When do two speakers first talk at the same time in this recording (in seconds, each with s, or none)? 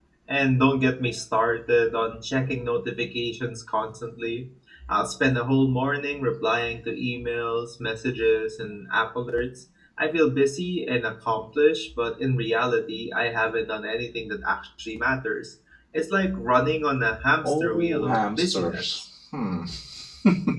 17.4 s